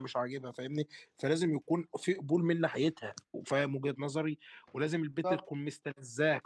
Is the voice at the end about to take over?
No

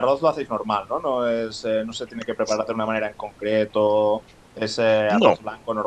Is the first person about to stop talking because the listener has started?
No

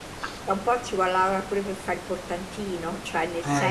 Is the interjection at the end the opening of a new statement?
No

